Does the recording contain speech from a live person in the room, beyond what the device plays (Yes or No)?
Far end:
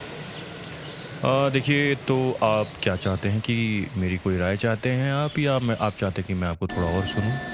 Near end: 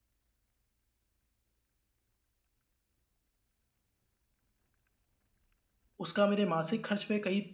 Yes